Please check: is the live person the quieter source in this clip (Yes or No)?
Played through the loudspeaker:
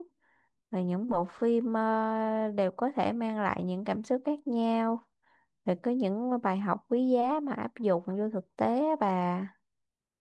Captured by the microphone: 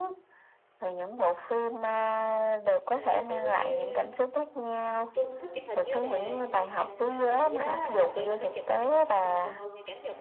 Yes